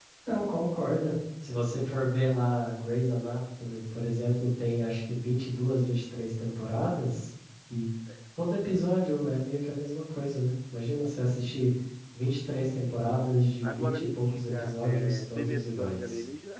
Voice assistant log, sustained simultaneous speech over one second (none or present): present